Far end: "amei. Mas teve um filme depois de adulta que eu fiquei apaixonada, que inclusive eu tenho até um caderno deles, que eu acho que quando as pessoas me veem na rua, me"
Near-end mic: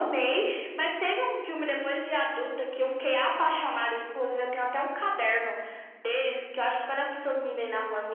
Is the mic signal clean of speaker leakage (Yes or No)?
No